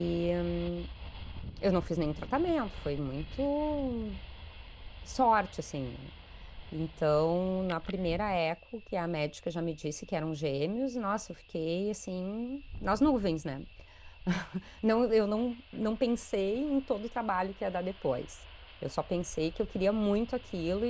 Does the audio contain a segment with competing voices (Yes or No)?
No